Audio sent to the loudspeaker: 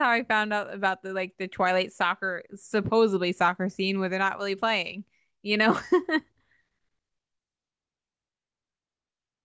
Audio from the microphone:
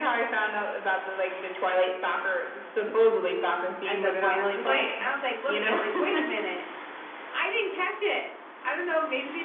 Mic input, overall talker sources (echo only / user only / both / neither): both